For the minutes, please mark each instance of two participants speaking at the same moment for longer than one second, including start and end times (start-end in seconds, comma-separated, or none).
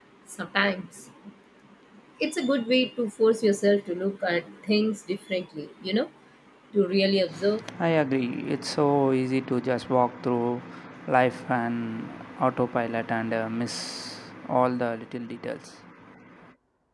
none